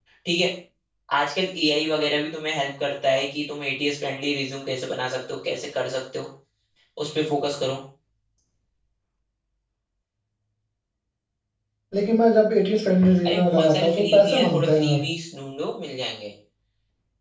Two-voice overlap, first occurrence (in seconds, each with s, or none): 13.2 s